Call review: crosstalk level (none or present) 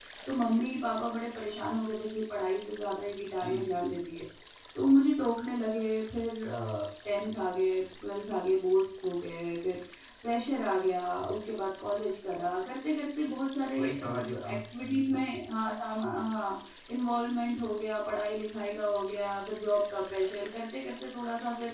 present